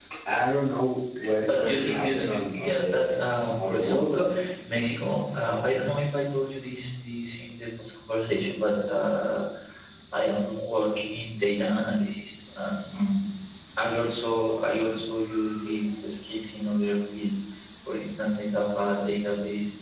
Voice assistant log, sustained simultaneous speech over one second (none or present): present